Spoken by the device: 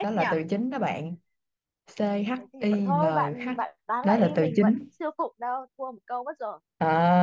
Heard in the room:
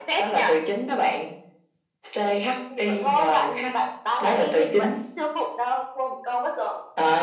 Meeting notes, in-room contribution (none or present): none